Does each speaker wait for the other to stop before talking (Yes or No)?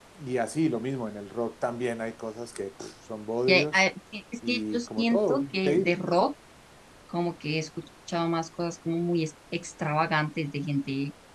No